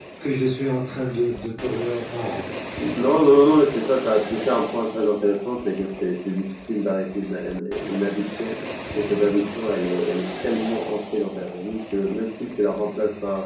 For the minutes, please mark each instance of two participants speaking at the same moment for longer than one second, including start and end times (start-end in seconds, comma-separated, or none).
none